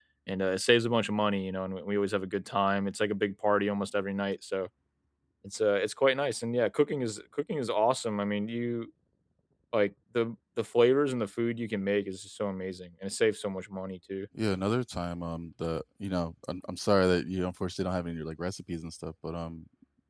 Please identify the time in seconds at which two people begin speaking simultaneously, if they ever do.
none

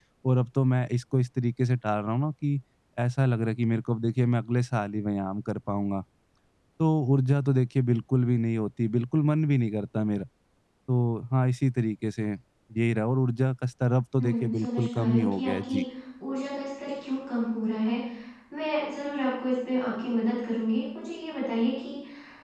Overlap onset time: 14 s

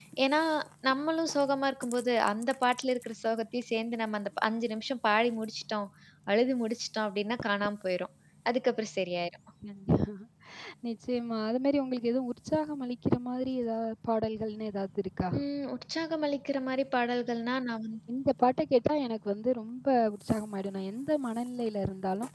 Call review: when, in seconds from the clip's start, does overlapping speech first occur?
none

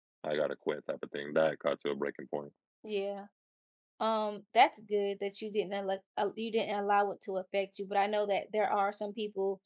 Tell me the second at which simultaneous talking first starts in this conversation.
none

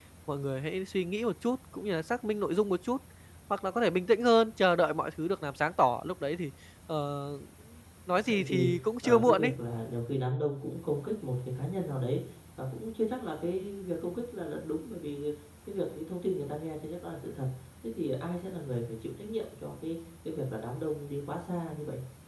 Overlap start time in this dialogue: 8 s

